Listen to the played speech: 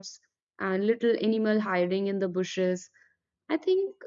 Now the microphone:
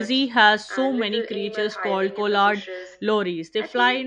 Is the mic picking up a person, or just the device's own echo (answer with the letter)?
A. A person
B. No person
A